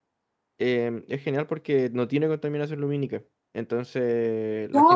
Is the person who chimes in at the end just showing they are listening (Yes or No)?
No